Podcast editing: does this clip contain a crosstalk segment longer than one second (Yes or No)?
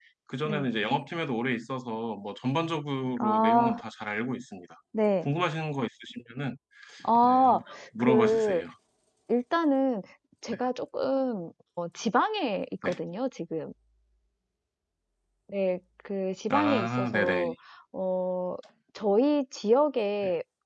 Yes